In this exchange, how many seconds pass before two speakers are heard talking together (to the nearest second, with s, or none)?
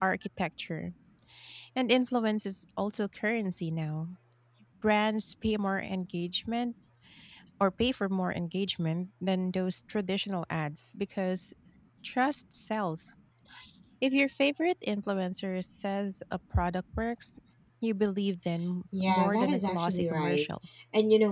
19 s